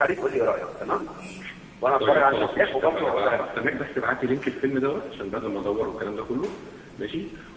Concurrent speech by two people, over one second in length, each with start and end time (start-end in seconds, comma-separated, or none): 2.0-3.4